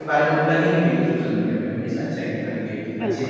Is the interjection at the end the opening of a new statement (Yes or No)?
No